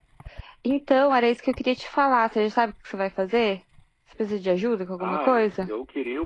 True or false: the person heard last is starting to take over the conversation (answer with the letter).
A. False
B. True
B